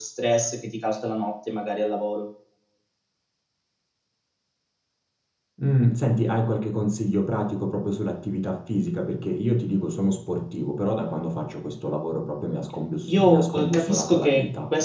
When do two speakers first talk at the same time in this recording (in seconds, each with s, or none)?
13.0 s